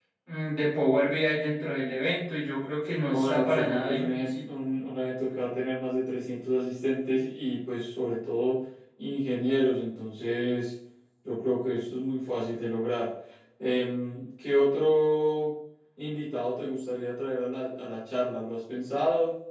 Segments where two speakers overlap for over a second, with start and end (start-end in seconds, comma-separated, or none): 3.0-4.4